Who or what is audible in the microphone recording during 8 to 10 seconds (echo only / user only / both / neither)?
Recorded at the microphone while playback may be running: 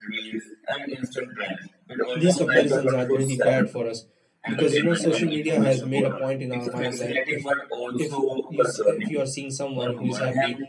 both